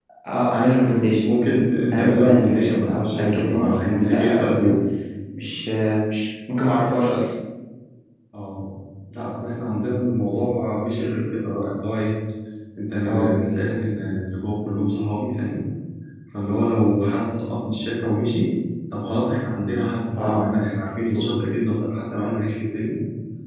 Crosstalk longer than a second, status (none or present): present